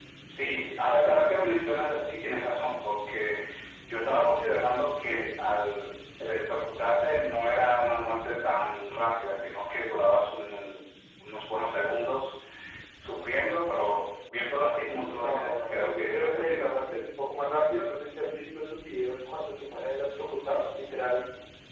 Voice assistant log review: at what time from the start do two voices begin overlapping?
15 s

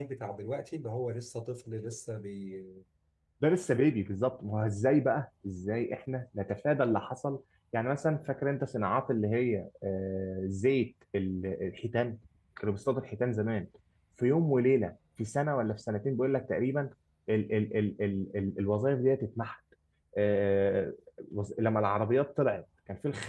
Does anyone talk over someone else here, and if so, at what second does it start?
none

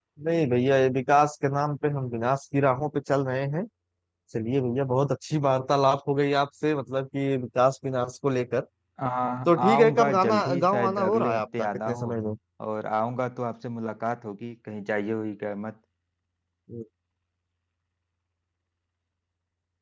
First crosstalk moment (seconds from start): 10 s

